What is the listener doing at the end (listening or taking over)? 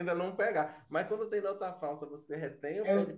listening